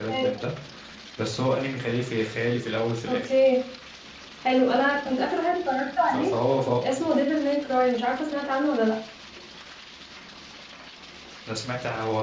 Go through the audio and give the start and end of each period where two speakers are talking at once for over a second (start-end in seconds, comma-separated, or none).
none